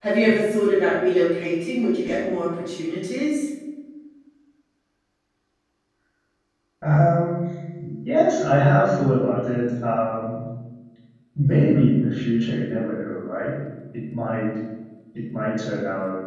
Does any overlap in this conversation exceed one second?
No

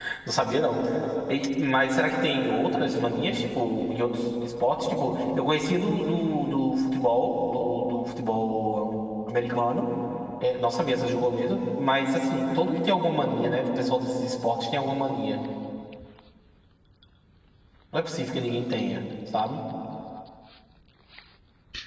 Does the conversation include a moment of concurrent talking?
No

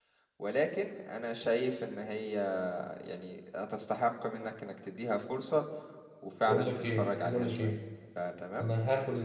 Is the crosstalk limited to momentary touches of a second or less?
No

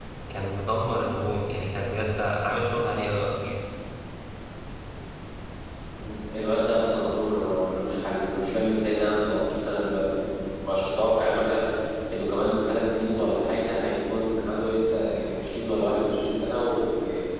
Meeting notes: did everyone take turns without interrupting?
Yes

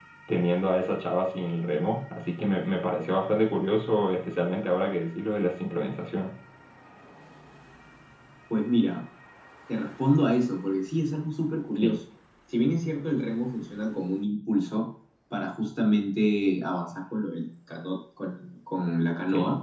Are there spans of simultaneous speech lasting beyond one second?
No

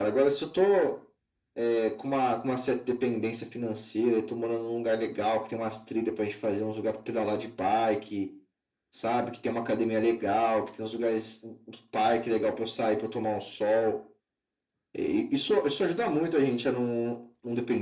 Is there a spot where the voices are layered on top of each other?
No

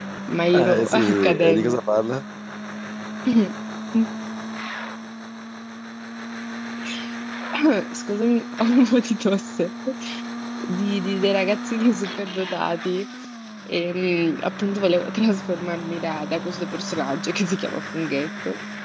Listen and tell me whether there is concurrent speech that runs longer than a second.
Yes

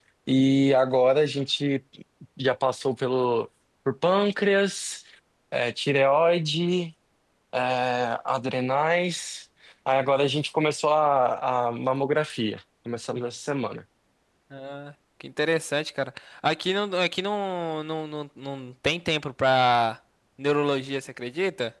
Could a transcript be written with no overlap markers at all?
Yes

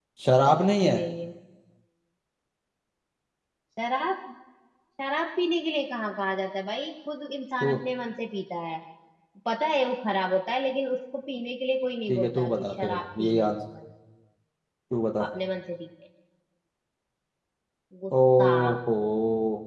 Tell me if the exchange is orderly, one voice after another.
No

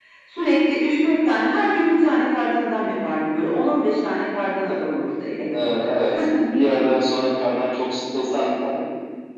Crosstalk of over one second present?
No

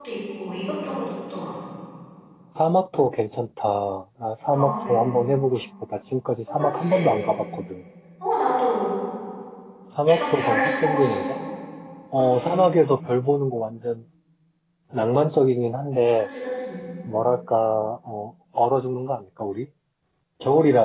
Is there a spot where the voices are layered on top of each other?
Yes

